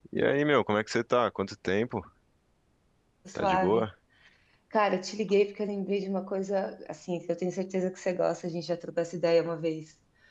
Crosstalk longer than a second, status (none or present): none